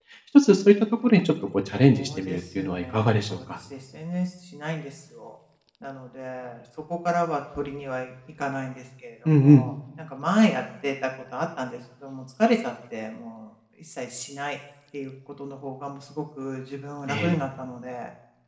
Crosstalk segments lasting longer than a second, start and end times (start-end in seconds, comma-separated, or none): 1.8-3.4